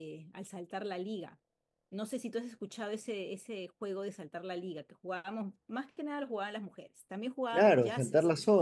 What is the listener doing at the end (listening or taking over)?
taking over